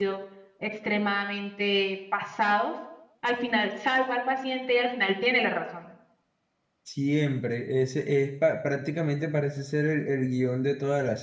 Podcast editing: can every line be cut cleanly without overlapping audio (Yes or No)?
Yes